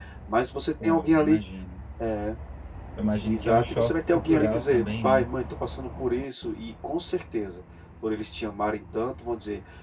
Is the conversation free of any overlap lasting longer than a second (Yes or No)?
No